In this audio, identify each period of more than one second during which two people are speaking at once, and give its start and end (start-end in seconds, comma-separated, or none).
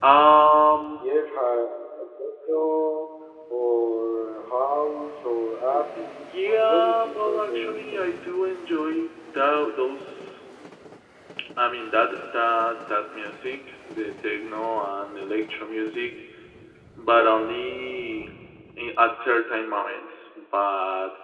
5.7-7.9